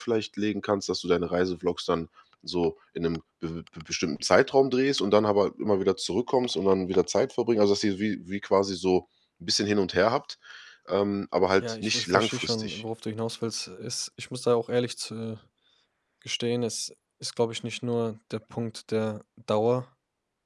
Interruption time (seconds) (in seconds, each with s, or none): 11.6 s